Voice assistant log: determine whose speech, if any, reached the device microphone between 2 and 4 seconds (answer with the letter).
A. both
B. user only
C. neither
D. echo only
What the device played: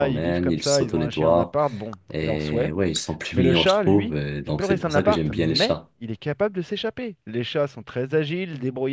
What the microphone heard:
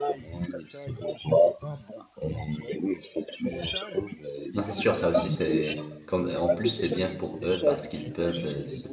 D